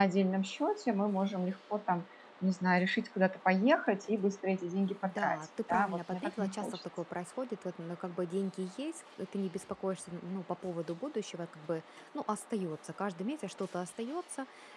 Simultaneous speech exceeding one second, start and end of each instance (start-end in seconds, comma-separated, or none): 5.0-6.8